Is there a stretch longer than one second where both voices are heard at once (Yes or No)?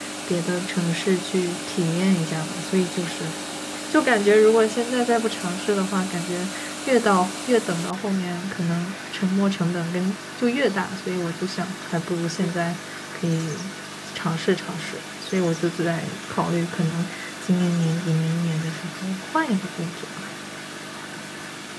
No